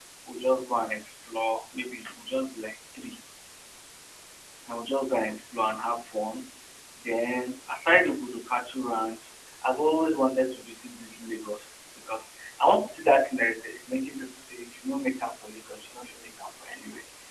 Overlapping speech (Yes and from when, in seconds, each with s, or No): No